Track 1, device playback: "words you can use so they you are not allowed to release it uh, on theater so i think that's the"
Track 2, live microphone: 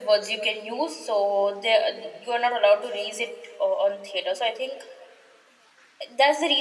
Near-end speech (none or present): none